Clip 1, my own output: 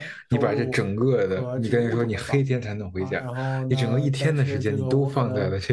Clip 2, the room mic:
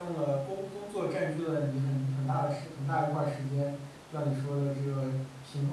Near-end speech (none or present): present